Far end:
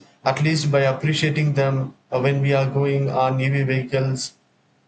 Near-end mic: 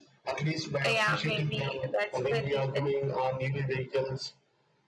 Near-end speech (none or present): present